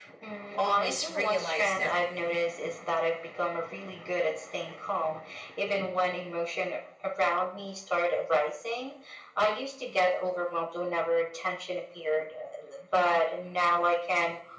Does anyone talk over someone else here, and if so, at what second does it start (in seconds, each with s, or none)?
0.6 s